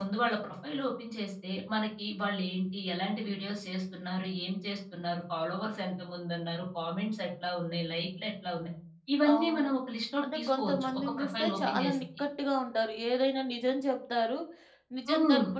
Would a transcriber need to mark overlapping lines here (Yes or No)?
Yes